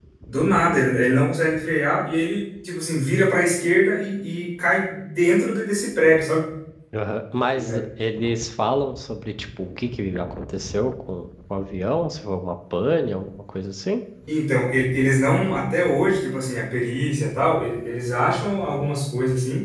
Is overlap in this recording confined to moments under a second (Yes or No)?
Yes